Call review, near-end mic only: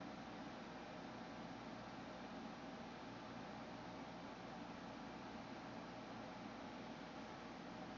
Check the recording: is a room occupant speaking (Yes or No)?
No